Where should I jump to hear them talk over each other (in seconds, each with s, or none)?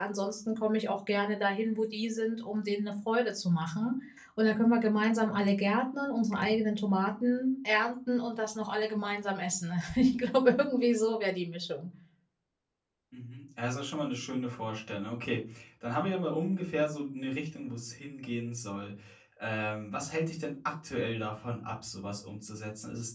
none